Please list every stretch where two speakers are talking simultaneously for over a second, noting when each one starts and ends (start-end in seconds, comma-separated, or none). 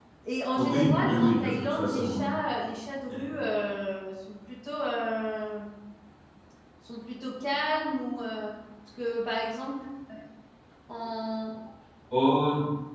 0.5-2.3